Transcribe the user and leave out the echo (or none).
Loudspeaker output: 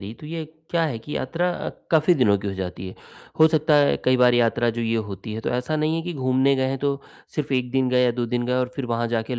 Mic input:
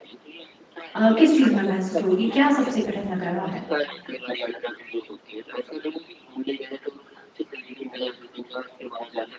अ, किस चीज़ में महसूस होगी? क्या सबसे कठिन लग रहा है?